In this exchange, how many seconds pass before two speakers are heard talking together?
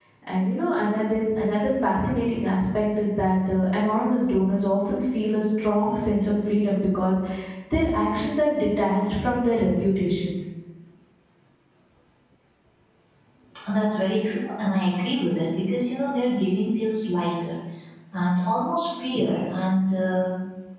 none

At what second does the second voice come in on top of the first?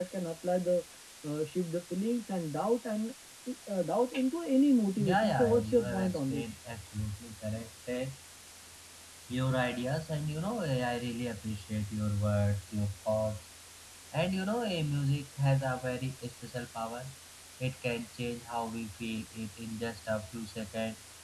5.0 s

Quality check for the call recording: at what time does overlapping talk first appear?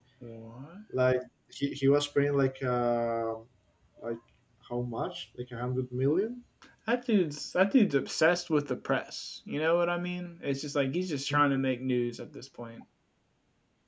none

